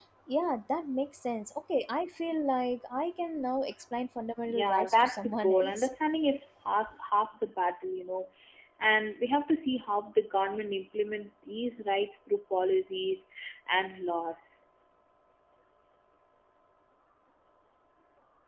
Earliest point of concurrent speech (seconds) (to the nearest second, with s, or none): 4 s